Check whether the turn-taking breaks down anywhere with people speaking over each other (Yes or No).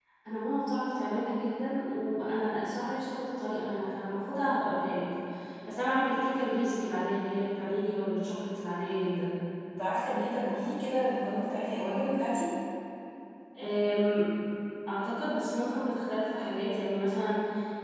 No